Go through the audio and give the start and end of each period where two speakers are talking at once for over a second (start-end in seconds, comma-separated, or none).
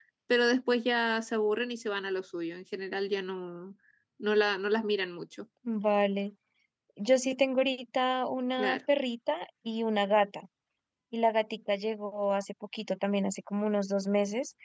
none